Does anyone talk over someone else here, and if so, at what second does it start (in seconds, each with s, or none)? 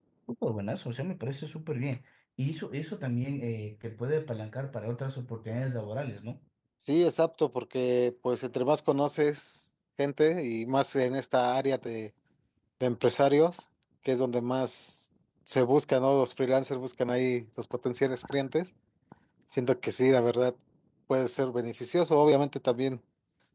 none